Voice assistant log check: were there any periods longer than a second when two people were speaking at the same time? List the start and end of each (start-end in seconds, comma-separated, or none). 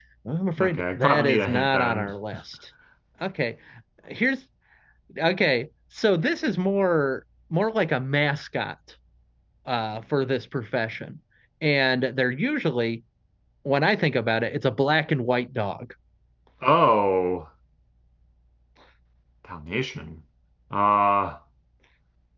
0.6-2.1